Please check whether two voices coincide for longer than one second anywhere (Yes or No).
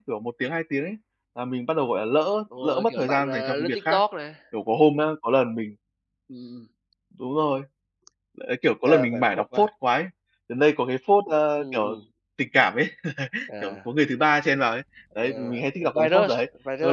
Yes